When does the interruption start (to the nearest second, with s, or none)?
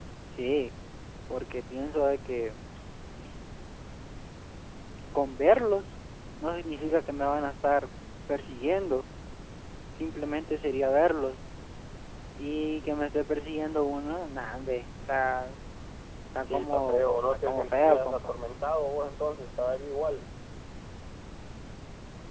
16 s